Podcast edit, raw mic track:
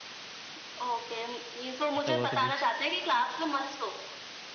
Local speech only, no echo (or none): ऐसा हुआ कभी?